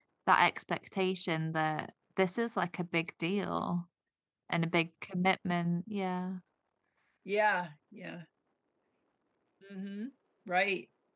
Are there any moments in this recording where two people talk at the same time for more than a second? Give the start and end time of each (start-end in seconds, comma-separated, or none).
none